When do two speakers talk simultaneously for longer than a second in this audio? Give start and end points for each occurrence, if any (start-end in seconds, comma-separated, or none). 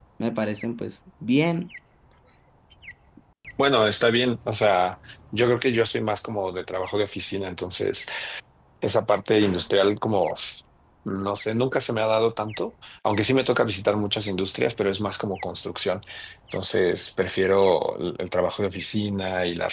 none